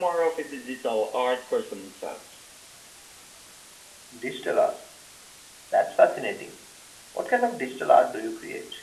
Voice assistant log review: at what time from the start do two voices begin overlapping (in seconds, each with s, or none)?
none